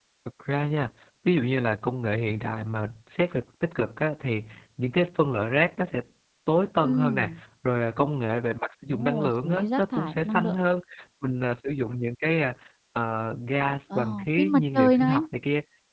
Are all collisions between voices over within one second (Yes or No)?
No